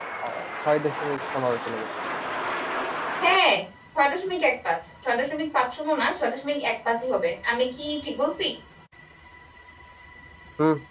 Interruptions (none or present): none